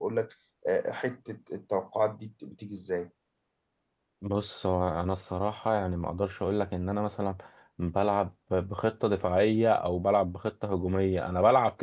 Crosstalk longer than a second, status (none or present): none